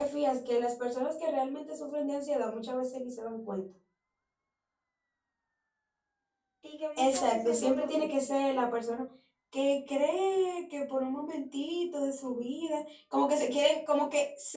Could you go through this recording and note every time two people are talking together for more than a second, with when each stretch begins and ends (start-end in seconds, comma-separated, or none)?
7.0-8.3